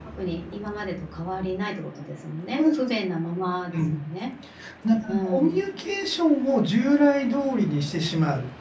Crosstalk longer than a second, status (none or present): none